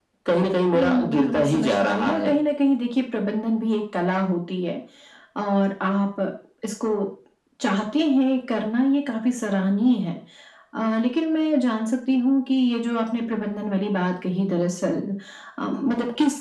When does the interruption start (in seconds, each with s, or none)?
0.7 s